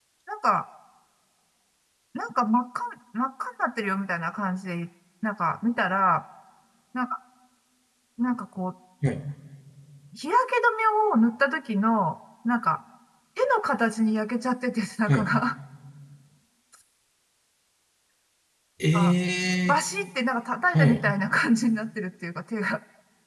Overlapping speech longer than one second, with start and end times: none

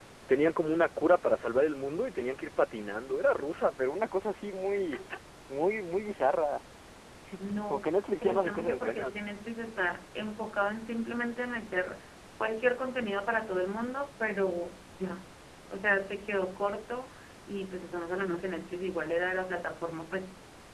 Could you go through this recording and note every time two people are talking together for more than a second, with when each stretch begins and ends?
7.7-9.2

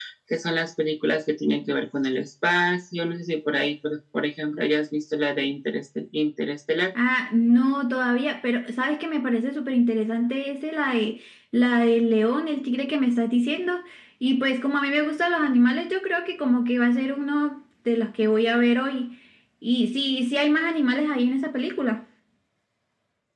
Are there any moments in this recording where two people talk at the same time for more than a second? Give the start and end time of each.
none

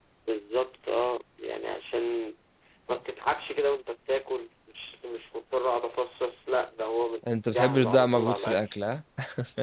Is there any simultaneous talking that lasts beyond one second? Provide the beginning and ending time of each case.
7.5-8.7

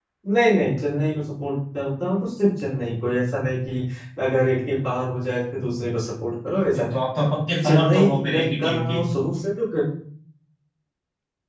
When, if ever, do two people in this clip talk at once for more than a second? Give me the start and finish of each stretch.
7.7-9.0

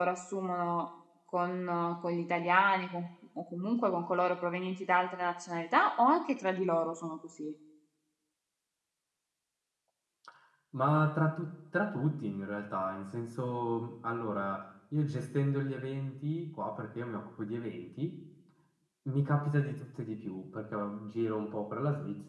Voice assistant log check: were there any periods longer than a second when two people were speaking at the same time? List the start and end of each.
none

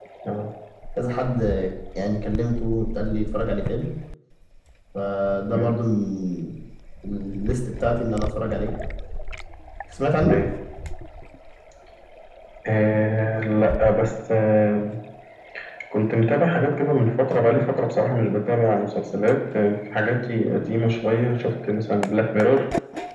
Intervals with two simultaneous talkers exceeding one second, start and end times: none

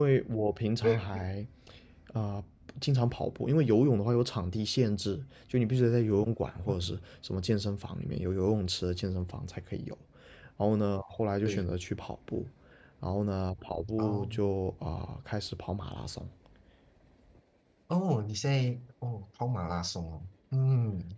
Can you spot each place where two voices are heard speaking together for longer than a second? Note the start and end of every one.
none

